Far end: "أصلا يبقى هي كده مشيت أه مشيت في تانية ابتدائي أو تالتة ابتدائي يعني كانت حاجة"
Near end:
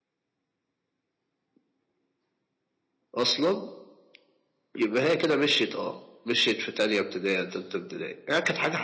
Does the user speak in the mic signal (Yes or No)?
No